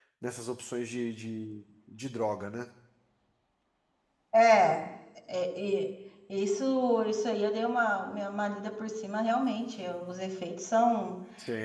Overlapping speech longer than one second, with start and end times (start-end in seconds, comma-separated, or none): none